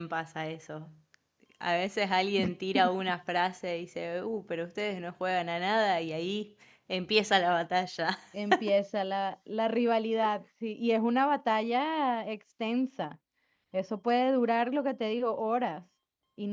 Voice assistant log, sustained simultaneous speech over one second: none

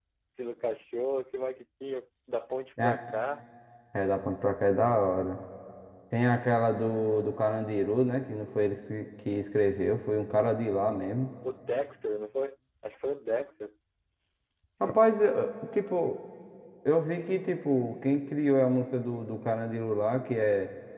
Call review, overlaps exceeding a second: none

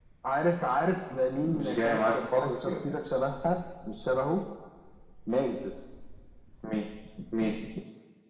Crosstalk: present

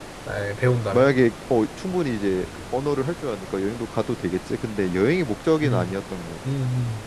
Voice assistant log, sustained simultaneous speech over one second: none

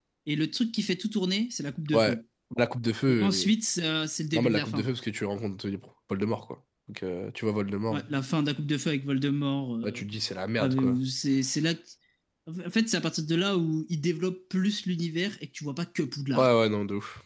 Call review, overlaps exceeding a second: none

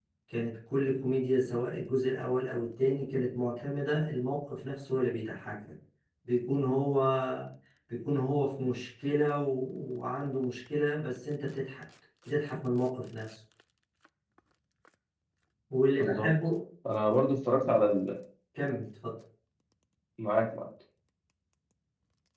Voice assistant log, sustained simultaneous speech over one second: none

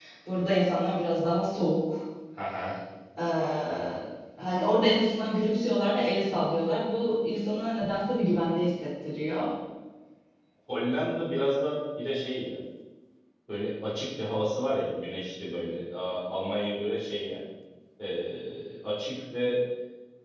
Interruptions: none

